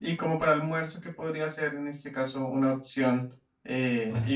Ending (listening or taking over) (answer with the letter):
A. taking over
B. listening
B